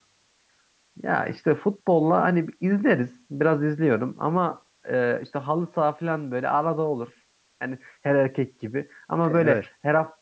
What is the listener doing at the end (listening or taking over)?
listening